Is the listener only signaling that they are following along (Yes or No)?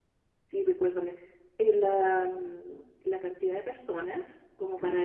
Yes